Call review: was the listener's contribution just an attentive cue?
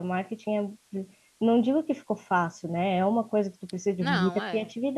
Yes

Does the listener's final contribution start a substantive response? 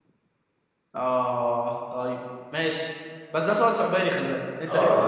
Yes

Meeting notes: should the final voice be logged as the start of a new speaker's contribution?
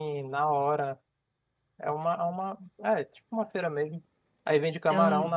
No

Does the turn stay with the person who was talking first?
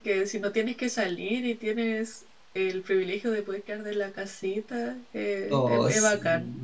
No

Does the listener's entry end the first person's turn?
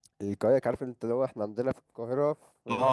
Yes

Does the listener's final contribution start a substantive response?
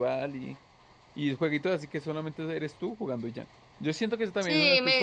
Yes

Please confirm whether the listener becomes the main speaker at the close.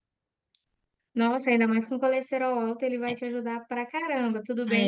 No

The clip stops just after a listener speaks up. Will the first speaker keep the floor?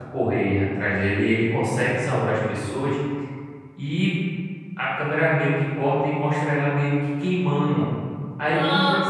Yes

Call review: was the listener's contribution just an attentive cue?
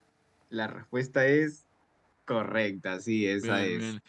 No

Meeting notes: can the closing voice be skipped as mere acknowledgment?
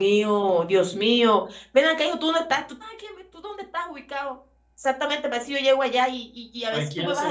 No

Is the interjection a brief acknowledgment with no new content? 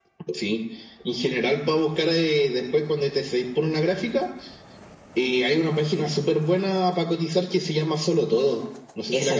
No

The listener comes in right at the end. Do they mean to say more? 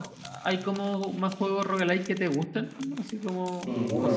Yes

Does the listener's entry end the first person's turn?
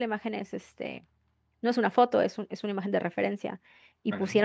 No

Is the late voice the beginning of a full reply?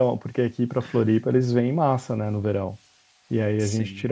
No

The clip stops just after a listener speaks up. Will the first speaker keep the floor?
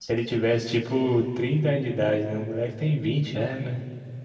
No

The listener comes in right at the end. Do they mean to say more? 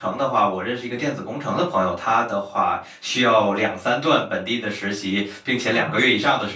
No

